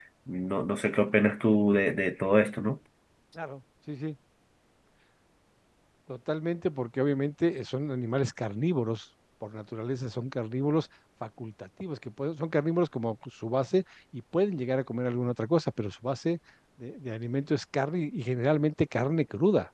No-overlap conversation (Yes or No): Yes